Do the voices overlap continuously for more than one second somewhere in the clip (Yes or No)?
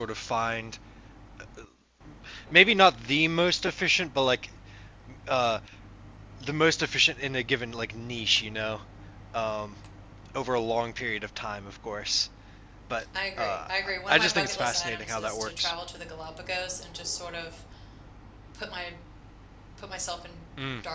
Yes